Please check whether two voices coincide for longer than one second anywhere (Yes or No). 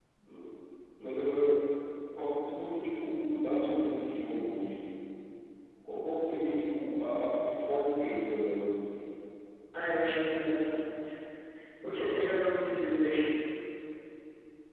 No